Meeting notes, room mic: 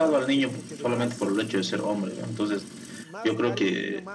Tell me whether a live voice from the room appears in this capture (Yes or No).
Yes